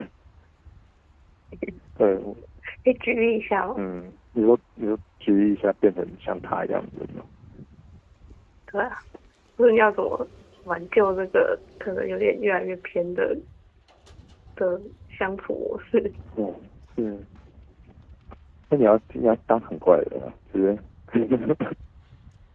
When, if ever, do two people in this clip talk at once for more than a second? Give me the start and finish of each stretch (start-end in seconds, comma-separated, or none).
none